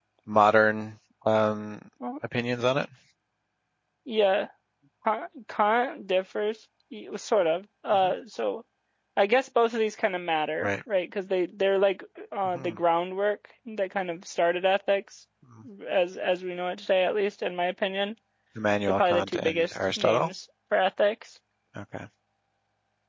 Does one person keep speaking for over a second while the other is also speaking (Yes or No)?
Yes